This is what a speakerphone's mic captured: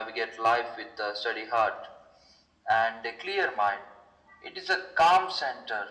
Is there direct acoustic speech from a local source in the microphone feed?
No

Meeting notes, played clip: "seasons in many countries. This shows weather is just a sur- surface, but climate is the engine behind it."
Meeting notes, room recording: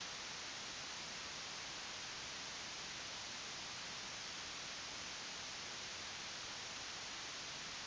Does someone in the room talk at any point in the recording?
No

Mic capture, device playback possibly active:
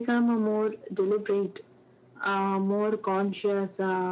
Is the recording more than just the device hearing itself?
No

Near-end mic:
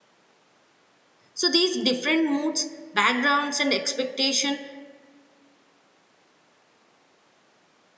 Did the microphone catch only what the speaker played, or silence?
No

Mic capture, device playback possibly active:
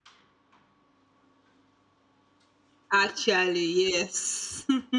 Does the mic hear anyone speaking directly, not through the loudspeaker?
Yes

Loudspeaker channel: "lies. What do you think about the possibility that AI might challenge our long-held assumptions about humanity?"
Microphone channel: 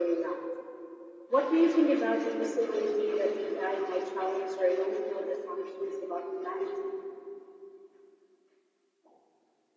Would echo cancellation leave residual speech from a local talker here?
No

